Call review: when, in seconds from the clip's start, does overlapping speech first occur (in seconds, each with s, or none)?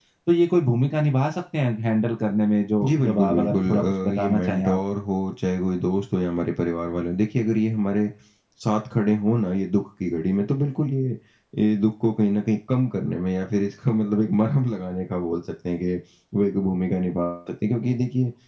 2.8 s